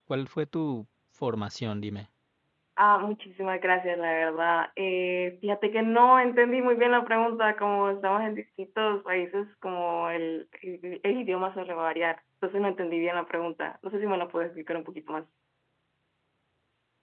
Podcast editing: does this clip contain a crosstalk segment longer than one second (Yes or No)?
No